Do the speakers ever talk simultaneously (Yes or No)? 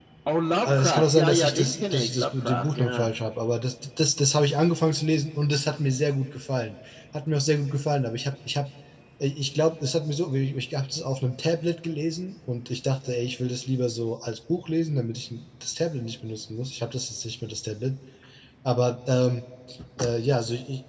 Yes